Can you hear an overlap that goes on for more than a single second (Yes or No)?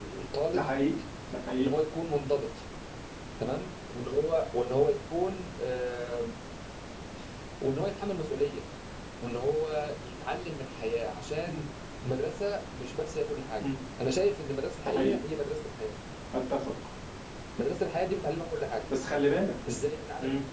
No